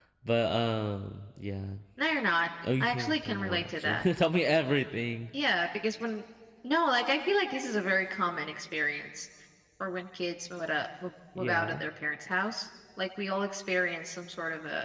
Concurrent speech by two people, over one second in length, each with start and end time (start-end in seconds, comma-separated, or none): 2.8-4.0